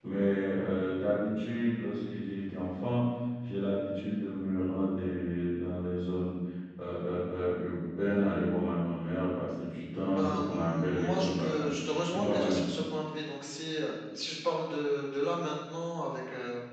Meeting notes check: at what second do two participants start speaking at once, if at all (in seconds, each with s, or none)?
10.0 s